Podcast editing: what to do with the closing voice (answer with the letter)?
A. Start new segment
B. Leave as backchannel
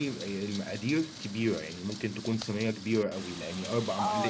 A